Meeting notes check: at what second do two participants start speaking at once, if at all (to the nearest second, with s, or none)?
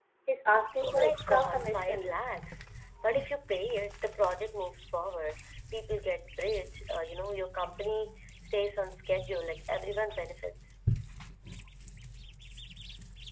1 s